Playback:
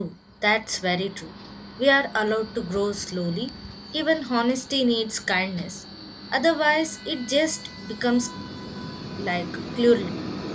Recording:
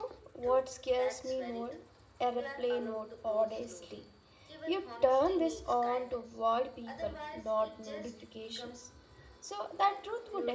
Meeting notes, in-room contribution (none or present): present